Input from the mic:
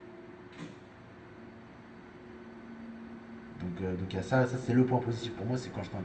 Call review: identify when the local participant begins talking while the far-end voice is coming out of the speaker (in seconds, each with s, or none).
3.6 s